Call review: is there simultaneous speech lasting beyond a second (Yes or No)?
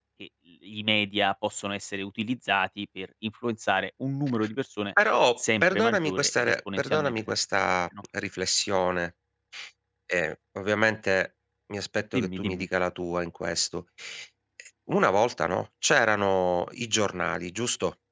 Yes